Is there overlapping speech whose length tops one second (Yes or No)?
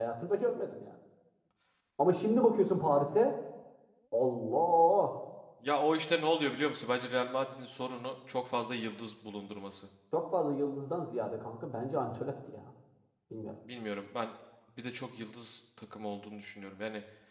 No